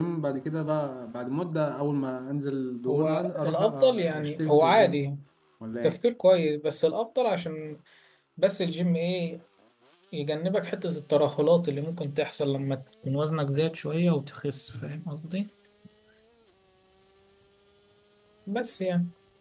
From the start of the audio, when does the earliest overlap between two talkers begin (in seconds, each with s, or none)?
2.9 s